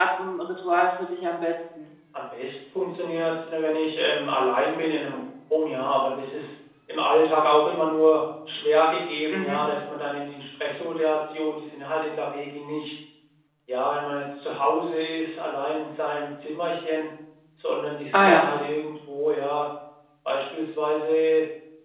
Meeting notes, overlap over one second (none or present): none